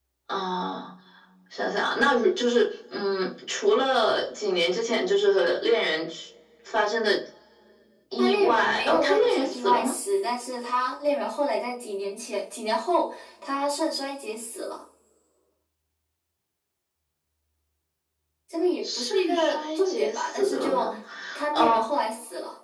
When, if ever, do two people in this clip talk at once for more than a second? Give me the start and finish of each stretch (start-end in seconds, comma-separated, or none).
8.2-9.9, 18.8-20.9